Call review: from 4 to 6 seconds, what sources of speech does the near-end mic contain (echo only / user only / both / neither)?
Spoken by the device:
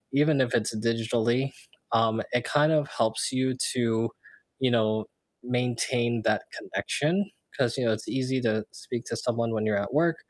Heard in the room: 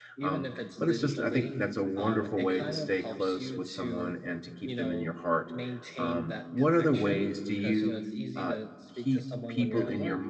both